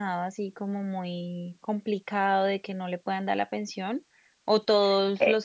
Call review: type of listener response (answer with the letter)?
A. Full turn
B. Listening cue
B